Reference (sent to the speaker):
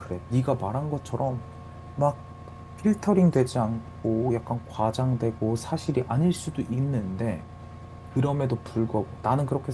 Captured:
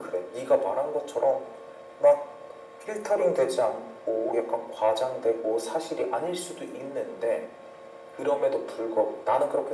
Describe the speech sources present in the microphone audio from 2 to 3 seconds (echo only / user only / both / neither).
echo only